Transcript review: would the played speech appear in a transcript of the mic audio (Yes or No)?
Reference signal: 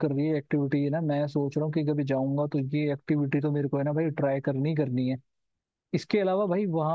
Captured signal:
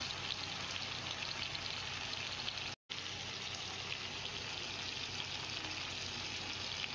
No